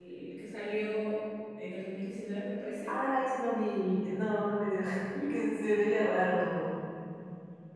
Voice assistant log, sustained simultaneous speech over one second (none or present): none